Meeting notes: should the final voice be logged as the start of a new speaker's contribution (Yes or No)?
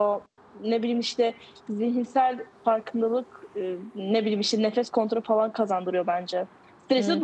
Yes